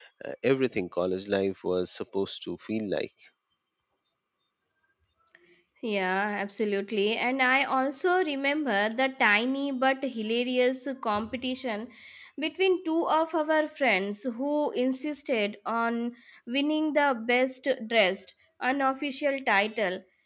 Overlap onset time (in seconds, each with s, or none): none